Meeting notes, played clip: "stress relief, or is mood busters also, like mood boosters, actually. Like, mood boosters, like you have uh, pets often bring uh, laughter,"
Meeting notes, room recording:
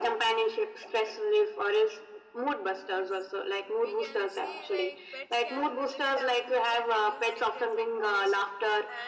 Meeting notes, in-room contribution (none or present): present